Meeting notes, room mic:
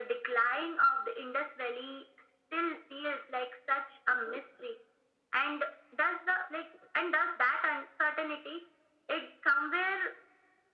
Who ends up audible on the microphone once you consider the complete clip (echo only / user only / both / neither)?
echo only